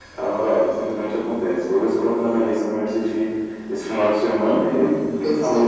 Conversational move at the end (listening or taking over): taking over